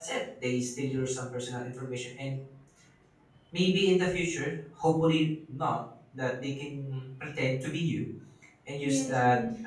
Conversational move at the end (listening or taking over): listening